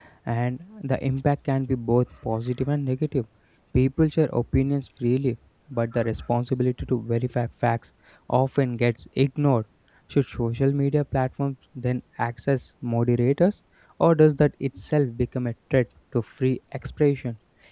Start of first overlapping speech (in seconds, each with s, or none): none